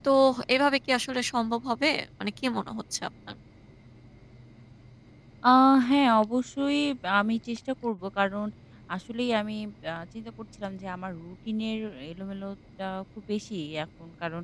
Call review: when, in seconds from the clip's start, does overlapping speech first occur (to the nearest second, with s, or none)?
none